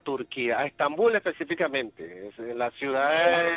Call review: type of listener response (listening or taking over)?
listening